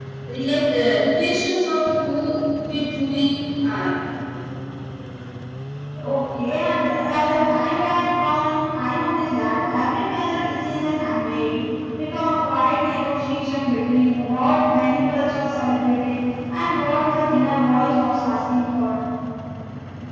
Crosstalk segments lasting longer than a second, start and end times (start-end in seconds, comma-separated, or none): none